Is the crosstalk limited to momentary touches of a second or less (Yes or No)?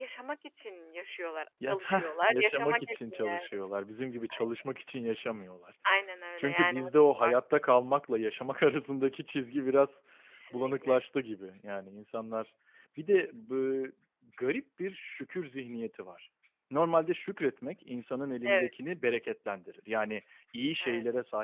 No